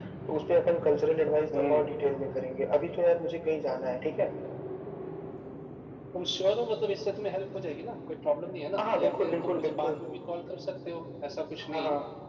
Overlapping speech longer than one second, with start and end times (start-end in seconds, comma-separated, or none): 8.8-10.0